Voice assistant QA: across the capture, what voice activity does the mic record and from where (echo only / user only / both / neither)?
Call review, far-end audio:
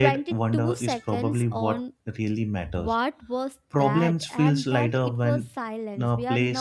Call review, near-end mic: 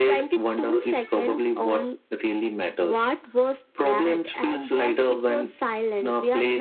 echo only